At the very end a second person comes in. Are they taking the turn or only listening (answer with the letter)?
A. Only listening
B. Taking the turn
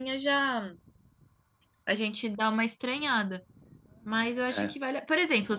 A